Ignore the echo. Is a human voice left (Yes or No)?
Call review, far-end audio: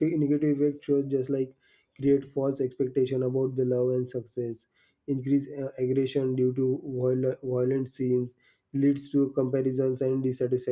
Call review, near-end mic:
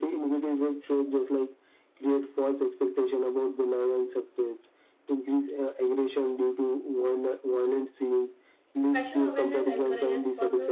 Yes